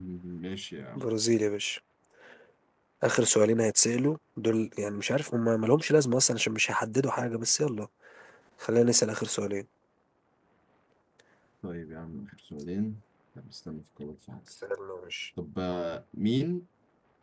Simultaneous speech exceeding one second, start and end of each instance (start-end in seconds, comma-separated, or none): none